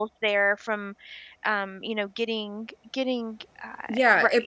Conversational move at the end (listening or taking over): taking over